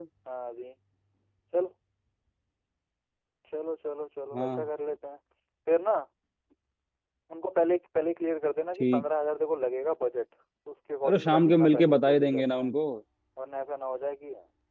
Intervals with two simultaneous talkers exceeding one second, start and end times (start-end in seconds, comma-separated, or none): 11.1-12.7